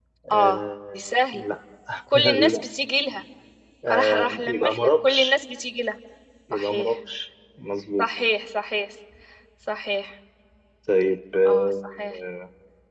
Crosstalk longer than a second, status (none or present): present